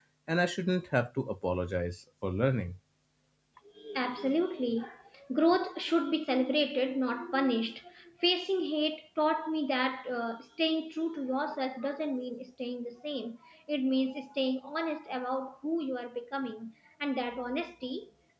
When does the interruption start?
none

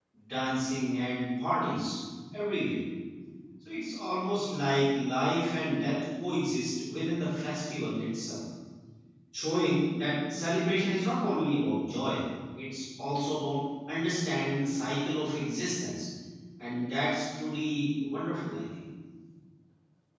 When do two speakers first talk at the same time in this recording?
none

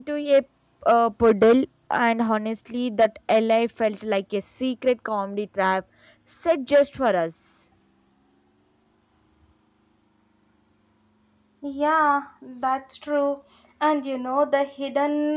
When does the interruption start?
none

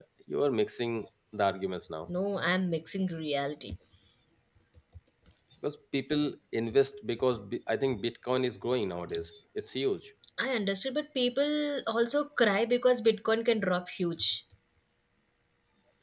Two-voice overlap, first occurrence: none

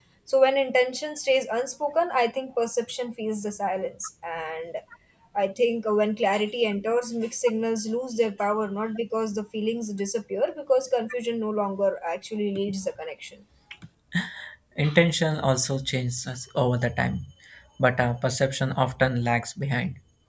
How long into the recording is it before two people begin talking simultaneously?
none

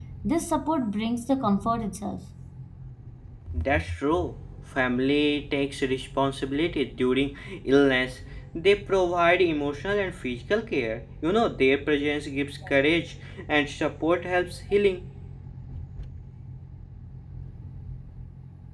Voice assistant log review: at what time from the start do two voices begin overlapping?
none

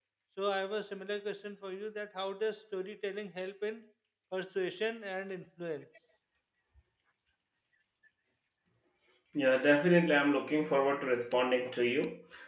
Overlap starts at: none

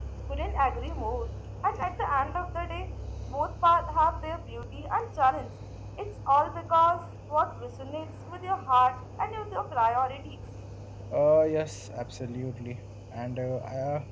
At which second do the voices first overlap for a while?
none

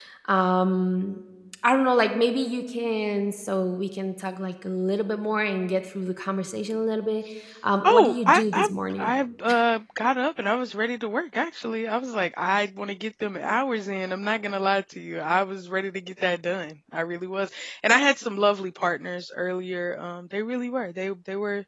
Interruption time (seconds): 7.8 s

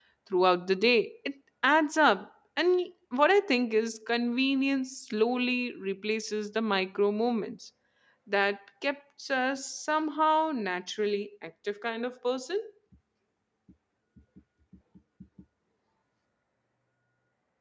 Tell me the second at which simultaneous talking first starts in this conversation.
none

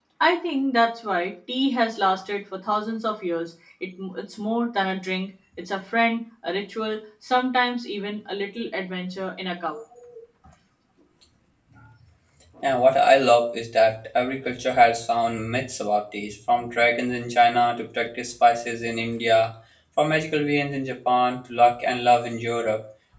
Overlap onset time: none

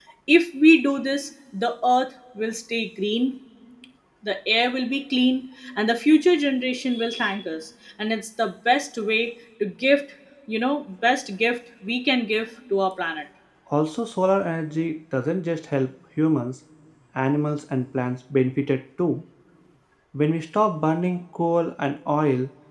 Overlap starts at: none

